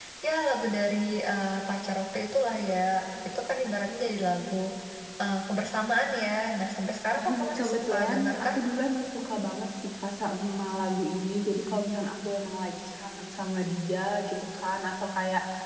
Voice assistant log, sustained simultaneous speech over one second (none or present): present